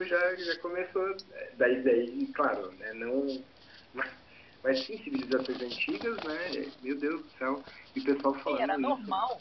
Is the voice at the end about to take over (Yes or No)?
Yes